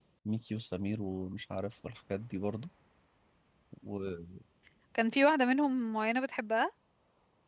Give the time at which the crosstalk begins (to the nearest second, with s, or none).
none